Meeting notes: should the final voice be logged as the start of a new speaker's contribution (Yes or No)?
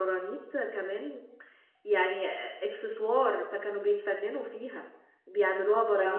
No